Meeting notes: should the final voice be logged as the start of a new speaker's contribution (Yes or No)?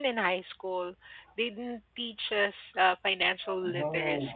Yes